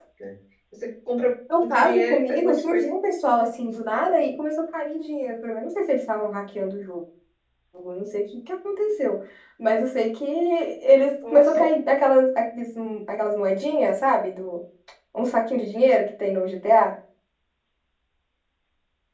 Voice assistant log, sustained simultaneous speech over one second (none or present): present